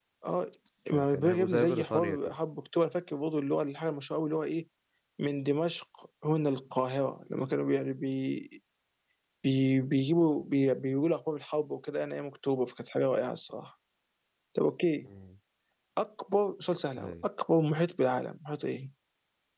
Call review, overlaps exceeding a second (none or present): present